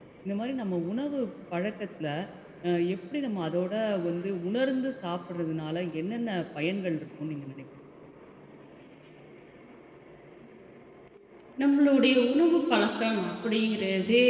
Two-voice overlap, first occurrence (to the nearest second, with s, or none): none